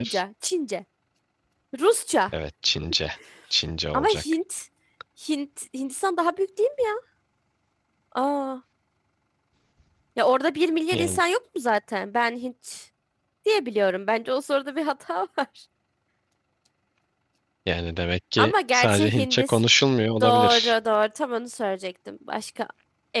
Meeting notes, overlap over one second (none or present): present